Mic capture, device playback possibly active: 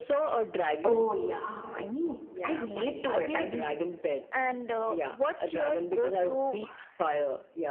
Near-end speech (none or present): present